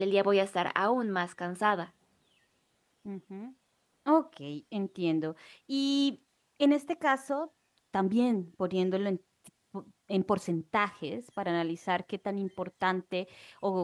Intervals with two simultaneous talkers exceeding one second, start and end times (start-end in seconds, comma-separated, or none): none